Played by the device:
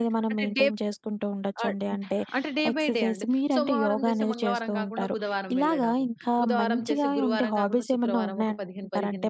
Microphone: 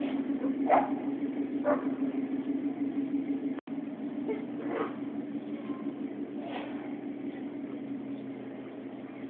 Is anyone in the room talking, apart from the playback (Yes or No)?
No